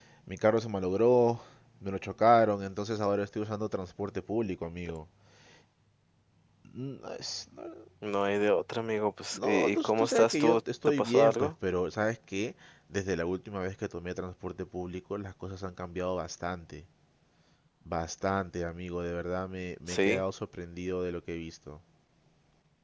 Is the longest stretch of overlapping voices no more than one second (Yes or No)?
No